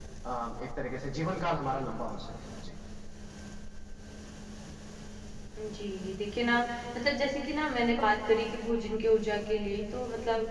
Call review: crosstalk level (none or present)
none